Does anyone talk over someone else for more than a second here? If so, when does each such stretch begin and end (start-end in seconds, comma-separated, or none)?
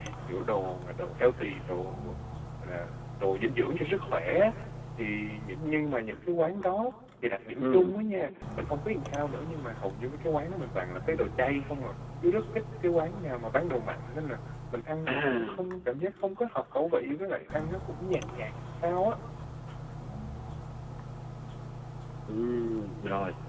none